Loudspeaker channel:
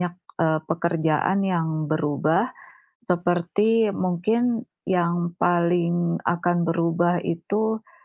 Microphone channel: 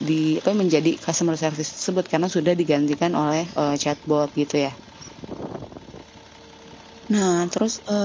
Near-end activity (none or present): present